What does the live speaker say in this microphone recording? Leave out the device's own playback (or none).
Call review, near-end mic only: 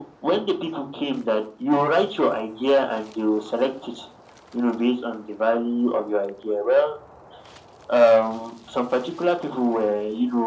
none